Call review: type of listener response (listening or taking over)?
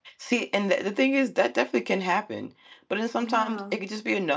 listening